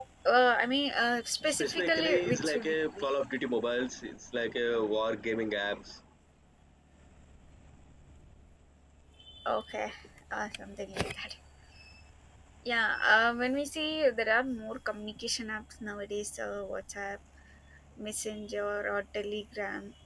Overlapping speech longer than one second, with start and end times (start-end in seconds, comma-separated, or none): 1.4-3.1